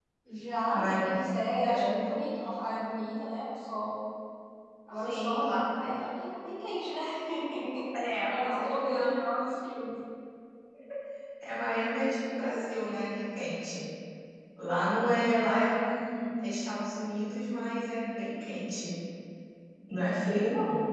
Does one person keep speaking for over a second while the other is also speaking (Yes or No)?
Yes